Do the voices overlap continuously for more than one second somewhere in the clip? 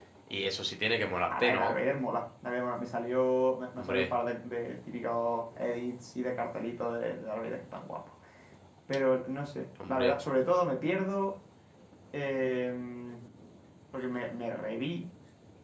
No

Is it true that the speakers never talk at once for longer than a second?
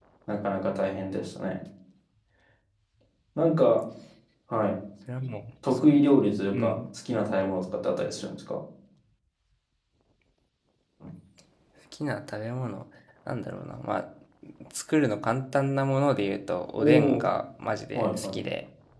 Yes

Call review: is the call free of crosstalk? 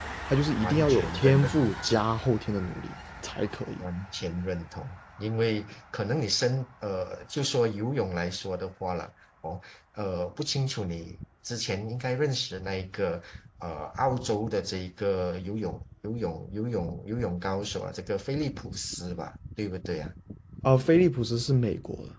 No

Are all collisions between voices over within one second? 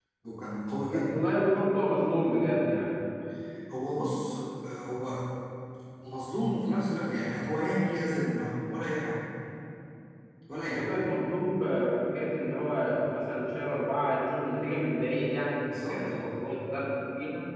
Yes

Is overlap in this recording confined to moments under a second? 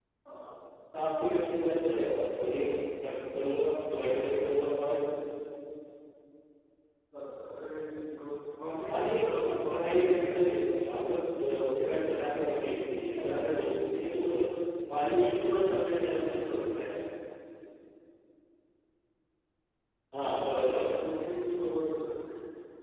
No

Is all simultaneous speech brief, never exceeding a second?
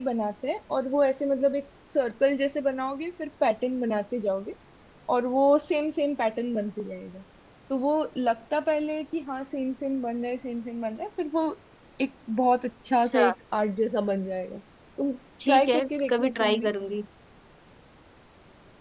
No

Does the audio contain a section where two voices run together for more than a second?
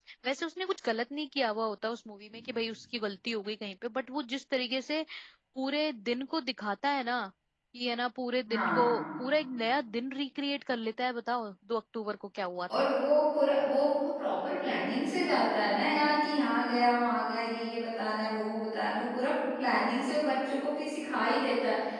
No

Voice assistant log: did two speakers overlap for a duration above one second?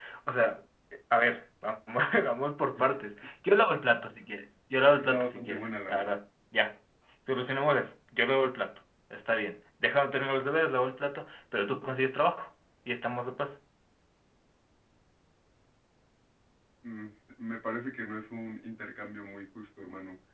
Yes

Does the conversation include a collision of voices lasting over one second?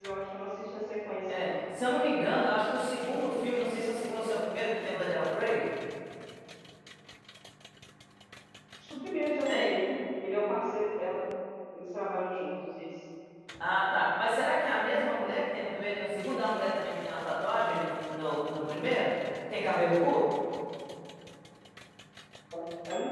No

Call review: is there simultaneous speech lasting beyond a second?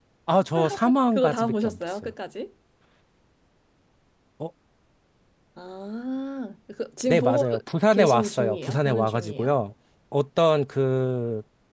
Yes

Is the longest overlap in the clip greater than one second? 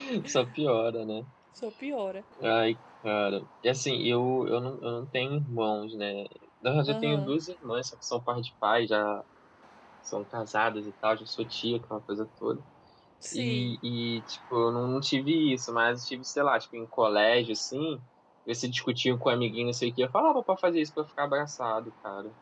No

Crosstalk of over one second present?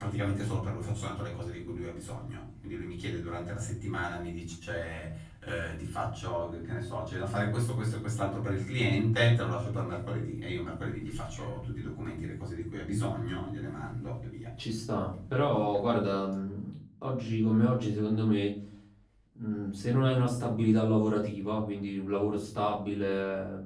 No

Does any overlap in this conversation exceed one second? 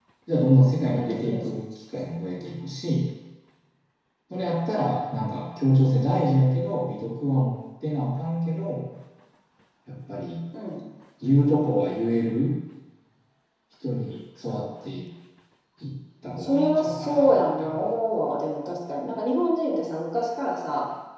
Yes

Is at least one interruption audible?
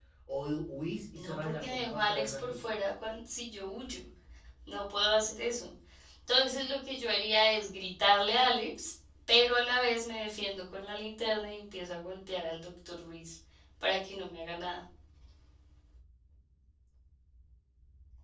Yes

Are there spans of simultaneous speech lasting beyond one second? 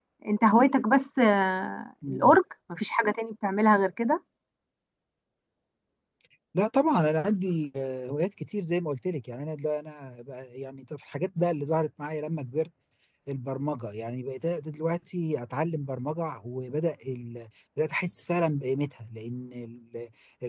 No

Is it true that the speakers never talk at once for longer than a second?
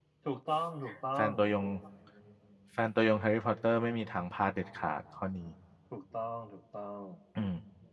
Yes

